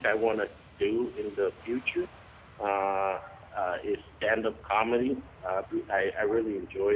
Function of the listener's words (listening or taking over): listening